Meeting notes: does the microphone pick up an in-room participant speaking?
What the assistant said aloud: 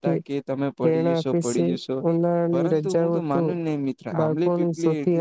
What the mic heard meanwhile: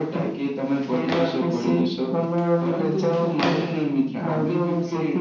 No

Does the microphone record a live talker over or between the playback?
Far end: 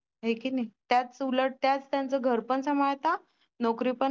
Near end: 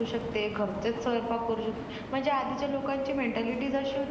Yes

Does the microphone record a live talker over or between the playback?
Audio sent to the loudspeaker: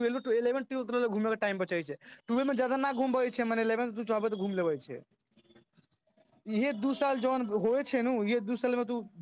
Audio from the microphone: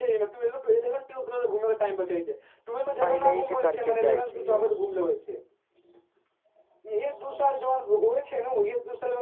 Yes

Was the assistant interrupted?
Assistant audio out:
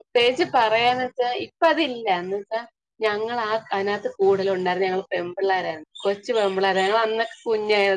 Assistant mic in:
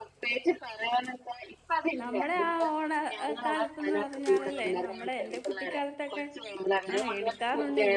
Yes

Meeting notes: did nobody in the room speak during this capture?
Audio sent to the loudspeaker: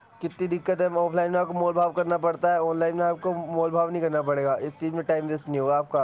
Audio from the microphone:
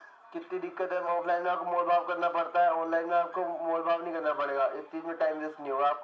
Yes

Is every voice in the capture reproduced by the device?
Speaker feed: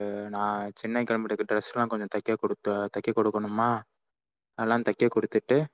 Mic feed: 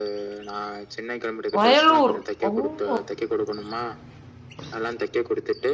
No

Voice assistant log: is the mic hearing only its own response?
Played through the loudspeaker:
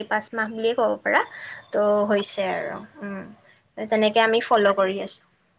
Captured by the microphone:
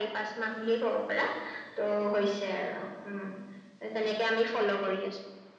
Yes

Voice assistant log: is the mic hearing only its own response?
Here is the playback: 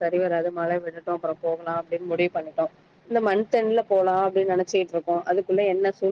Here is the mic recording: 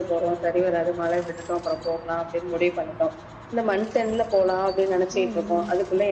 No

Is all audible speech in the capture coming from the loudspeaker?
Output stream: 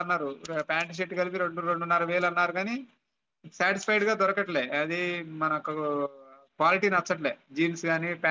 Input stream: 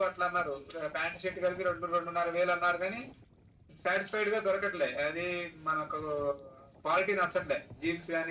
Yes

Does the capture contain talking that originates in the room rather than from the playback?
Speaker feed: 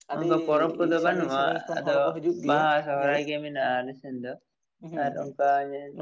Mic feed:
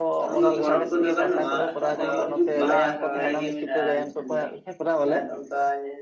Yes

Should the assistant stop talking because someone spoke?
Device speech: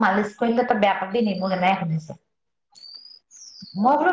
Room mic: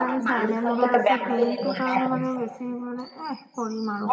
Yes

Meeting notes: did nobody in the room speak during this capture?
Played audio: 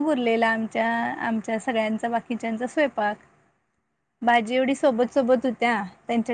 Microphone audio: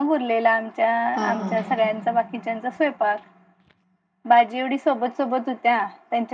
No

